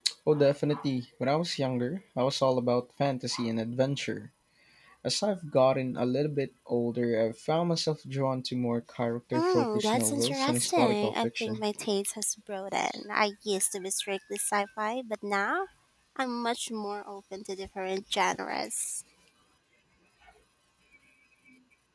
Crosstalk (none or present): present